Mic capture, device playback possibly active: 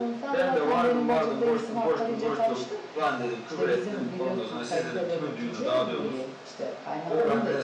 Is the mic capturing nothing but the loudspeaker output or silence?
Yes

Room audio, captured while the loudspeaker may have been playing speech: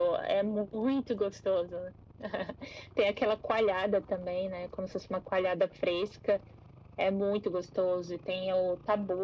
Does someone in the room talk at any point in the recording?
No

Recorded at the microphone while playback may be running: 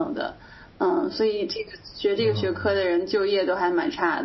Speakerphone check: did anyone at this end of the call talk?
Yes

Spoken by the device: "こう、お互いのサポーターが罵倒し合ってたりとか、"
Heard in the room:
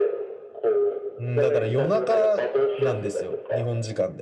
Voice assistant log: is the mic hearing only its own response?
No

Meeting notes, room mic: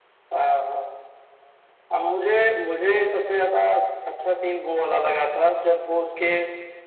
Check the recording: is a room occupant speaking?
No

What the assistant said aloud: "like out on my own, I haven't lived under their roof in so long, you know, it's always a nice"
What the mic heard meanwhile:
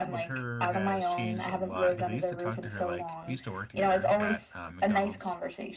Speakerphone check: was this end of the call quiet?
No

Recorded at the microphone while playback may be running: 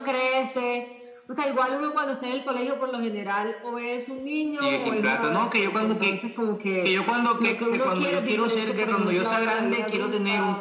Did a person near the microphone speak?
No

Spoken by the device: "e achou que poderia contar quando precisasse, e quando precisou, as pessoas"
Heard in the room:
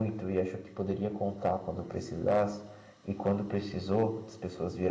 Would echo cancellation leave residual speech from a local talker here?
No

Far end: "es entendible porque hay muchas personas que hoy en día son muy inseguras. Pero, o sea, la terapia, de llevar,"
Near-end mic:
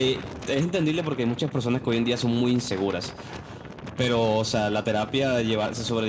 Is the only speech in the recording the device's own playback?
Yes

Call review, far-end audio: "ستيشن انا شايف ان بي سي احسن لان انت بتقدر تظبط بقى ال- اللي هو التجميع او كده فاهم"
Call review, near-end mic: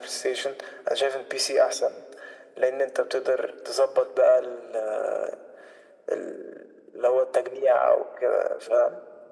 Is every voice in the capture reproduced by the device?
Yes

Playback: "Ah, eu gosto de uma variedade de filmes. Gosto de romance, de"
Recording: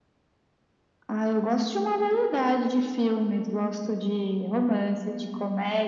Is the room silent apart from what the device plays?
Yes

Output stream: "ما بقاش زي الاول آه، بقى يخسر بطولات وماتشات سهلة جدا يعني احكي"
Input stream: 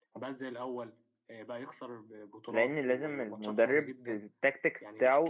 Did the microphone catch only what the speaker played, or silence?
No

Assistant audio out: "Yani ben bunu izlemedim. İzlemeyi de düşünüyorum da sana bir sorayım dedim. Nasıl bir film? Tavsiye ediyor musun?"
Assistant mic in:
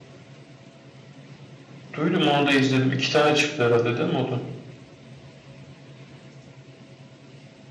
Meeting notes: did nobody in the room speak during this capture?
No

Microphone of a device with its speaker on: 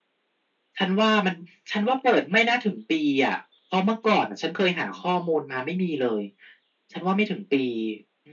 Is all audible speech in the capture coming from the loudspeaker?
Yes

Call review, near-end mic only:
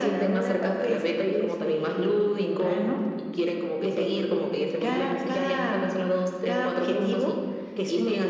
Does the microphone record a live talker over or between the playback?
No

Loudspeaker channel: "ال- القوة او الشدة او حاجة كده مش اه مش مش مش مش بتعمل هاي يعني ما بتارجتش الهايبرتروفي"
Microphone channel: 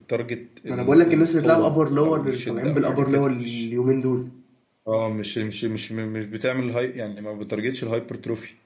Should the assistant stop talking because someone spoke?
Yes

